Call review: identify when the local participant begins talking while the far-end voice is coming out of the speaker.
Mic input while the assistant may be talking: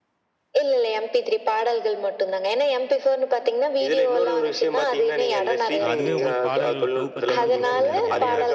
5.8 s

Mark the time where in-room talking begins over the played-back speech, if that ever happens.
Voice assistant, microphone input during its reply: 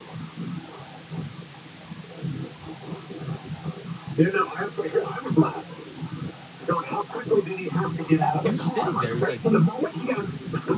8.4 s

